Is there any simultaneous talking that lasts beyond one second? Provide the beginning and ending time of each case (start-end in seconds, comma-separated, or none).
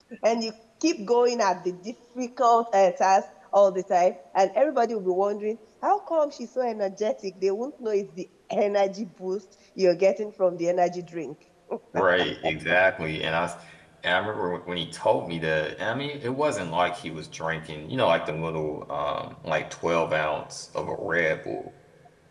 none